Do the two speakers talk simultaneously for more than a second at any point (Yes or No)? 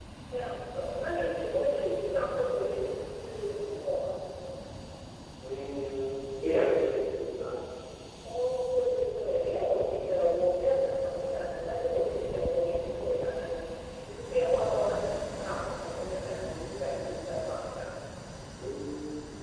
No